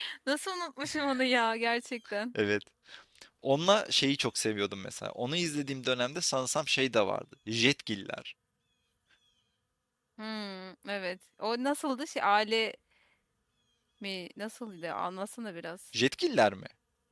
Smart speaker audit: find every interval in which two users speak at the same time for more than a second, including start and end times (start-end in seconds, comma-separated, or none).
none